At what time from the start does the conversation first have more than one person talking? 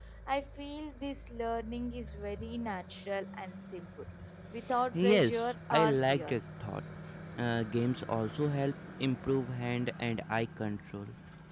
5 s

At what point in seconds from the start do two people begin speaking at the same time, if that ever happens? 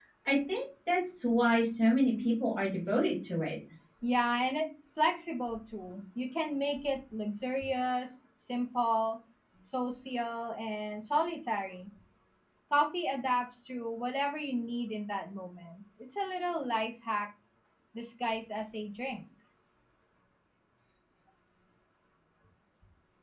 none

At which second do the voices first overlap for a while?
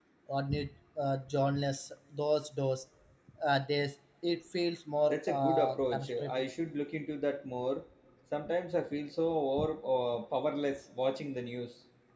5 s

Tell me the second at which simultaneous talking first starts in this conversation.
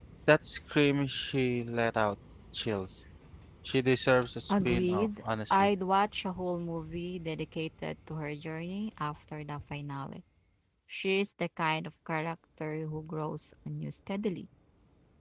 4 s

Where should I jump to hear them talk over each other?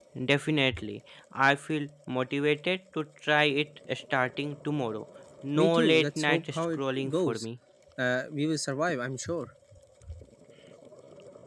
6 s

